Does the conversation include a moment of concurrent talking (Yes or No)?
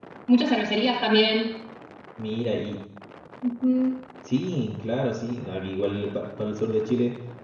No